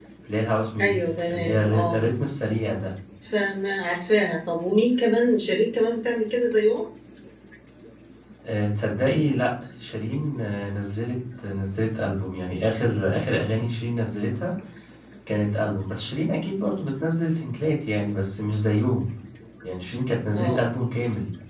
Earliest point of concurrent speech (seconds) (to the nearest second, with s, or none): 1 s